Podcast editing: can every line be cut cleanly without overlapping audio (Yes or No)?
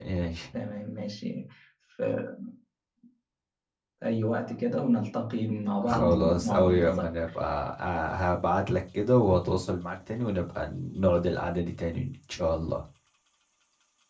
No